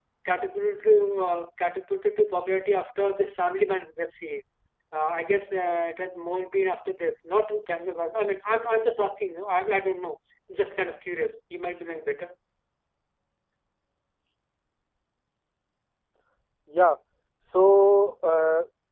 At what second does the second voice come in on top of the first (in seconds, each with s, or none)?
none